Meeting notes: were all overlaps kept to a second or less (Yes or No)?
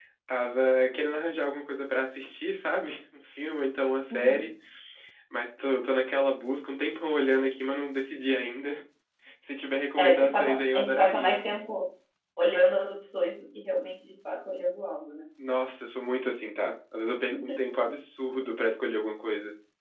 No